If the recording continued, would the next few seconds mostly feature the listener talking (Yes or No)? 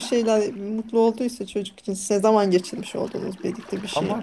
Yes